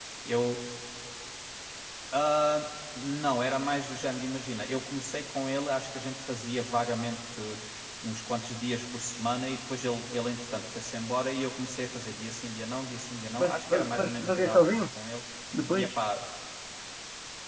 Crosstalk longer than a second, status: present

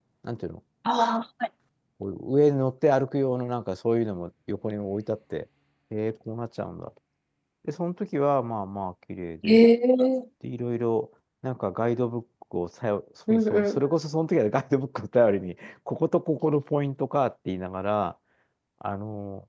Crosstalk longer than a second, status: none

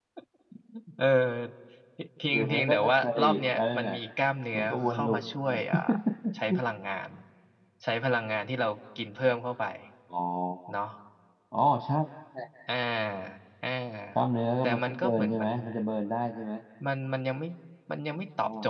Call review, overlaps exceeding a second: present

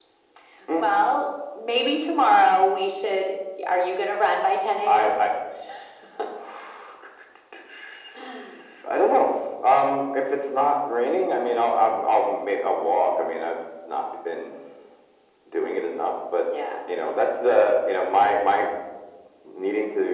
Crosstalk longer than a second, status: none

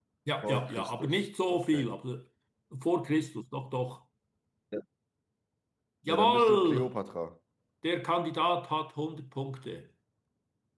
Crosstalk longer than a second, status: present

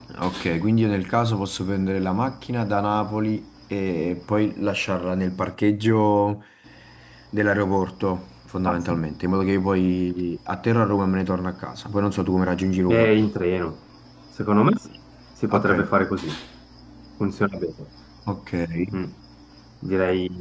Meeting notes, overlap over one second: none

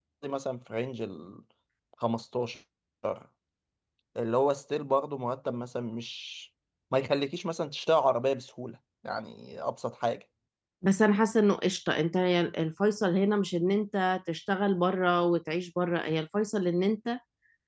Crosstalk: none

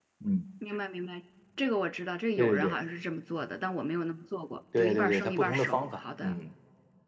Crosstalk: present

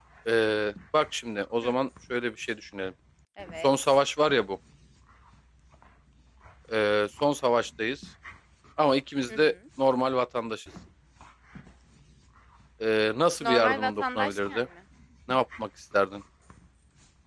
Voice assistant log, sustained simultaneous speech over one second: present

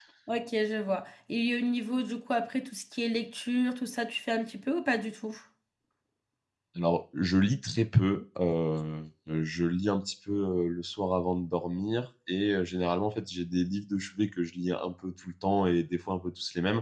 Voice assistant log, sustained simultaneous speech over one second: none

